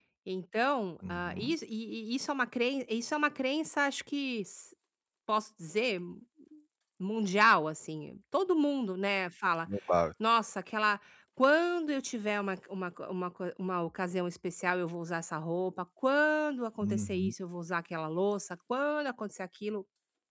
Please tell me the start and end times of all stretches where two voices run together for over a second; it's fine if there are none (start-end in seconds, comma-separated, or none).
none